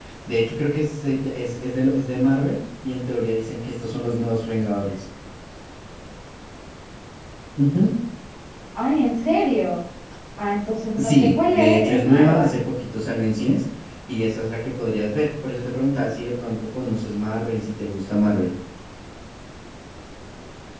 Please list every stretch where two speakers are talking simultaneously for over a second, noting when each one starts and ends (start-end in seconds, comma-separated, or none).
11.0-12.5